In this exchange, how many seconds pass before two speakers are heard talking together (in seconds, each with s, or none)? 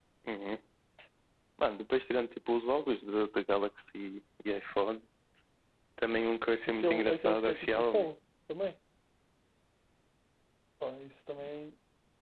6.7 s